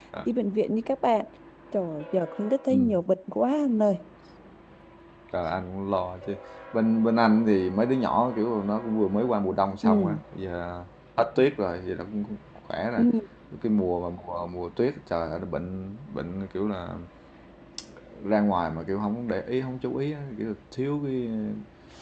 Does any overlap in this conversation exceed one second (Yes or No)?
No